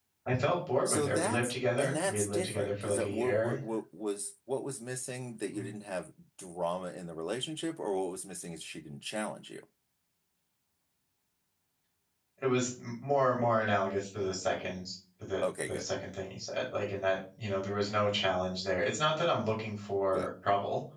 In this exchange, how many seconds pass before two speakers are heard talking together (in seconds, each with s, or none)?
0.8 s